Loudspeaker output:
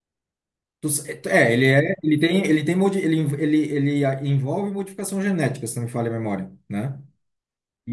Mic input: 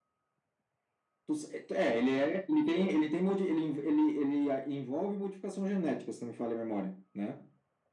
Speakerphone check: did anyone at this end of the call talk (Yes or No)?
No